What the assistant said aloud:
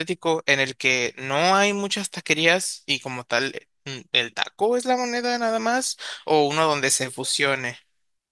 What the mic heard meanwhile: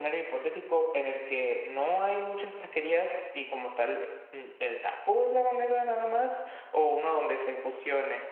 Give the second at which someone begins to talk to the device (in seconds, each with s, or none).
none